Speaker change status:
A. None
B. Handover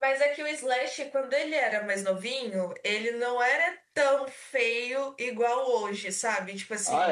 A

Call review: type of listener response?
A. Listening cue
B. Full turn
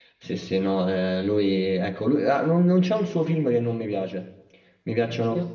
A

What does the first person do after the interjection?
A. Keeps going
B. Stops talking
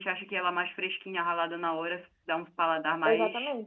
B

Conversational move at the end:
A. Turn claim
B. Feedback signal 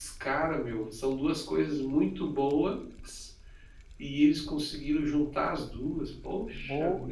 A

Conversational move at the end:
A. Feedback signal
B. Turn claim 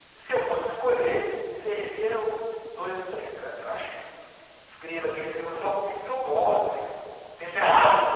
A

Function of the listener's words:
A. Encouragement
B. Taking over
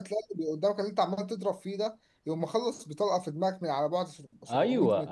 B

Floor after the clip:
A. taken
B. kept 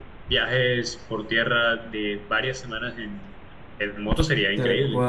A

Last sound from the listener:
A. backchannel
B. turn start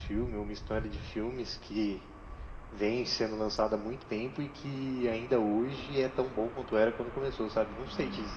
B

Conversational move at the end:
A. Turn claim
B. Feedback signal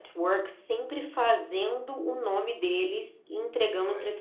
A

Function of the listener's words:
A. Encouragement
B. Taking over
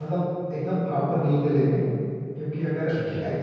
A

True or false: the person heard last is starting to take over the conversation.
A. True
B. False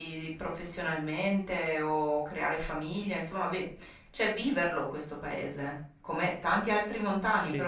B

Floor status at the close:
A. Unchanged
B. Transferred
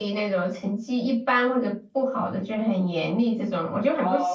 B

